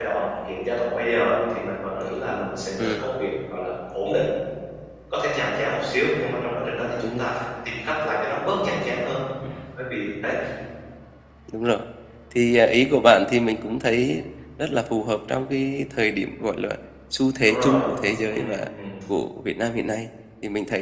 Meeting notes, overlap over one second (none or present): none